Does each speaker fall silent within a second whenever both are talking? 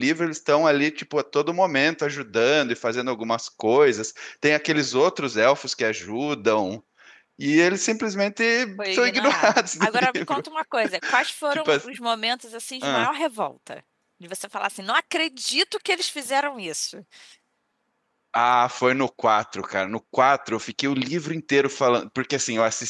No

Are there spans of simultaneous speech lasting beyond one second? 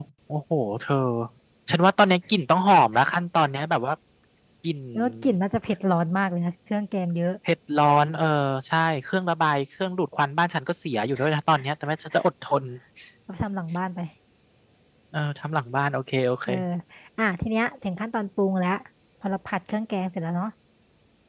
No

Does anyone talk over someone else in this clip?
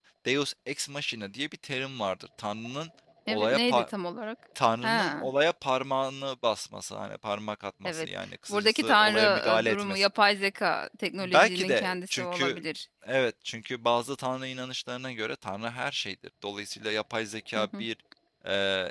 Yes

